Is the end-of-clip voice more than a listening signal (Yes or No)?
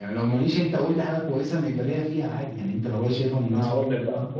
Yes